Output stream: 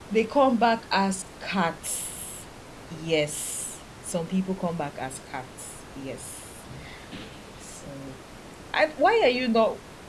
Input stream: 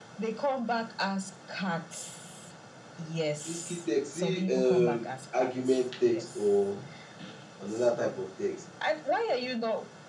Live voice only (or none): Risky text see um argument text or another type of text.